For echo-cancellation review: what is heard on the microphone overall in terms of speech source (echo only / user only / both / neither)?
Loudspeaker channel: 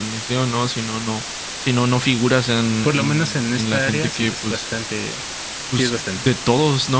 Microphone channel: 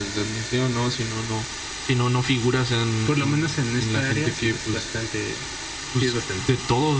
echo only